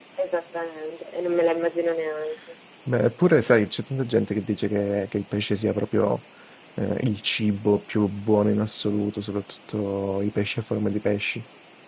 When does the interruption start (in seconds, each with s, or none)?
none